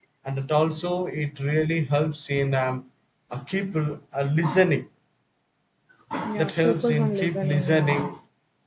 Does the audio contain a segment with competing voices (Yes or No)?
Yes